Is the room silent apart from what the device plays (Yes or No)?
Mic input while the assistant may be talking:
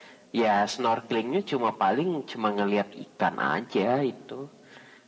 Yes